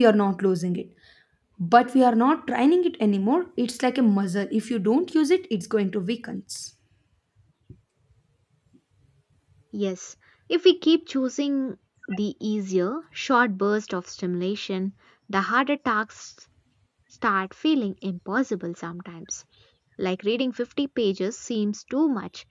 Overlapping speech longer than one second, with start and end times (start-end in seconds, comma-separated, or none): none